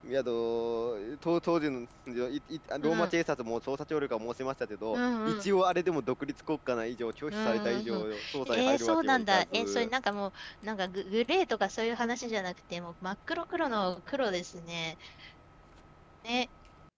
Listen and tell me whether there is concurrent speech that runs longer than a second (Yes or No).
Yes